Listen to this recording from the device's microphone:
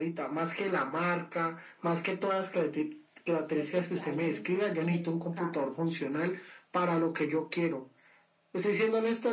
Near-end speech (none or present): present